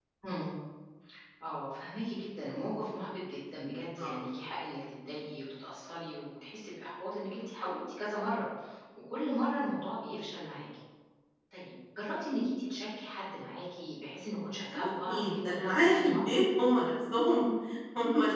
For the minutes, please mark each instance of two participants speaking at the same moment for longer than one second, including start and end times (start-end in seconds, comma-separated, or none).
14.7-16.3